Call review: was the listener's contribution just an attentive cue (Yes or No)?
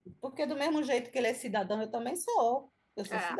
No